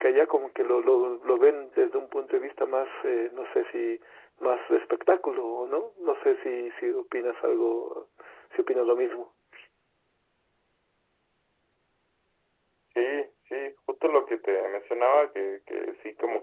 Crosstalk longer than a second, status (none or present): none